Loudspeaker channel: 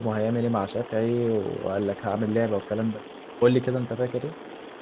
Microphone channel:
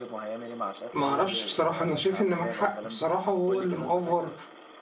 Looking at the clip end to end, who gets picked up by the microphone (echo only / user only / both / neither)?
both